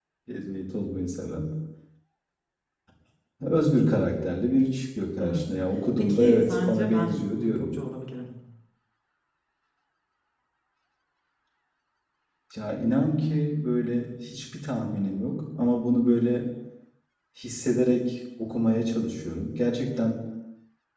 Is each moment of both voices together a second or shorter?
No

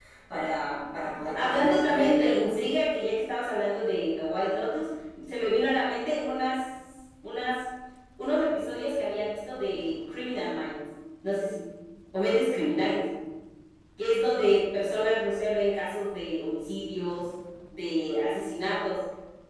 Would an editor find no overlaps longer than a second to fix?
No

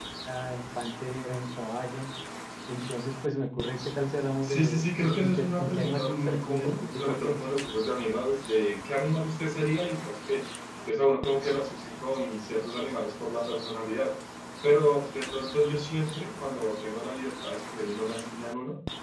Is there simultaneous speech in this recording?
Yes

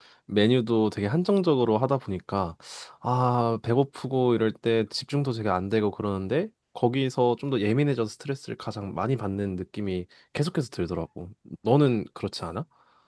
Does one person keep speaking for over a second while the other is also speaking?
No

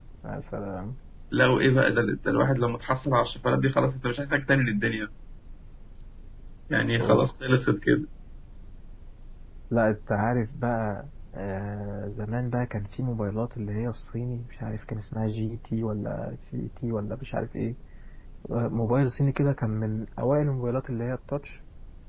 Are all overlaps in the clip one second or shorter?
Yes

